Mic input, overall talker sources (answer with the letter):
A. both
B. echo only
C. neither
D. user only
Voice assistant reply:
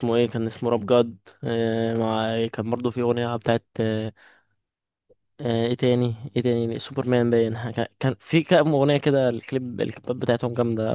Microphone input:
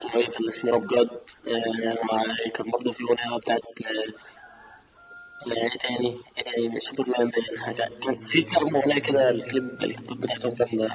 A